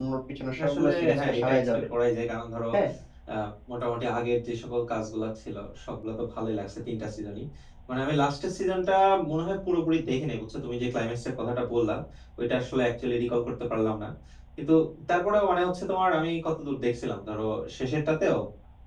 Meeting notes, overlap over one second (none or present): present